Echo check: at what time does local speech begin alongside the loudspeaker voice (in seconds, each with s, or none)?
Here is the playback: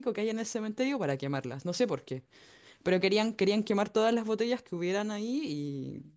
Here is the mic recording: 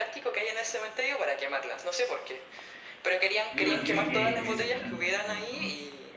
3.4 s